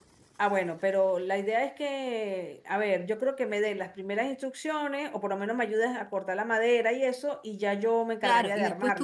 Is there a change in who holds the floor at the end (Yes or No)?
Yes